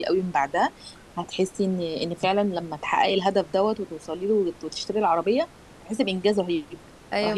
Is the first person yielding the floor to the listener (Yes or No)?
Yes